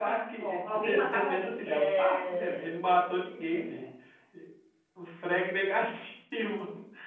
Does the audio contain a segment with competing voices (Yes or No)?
Yes